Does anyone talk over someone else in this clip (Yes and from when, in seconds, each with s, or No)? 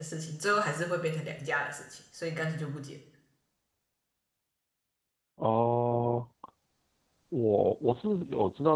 No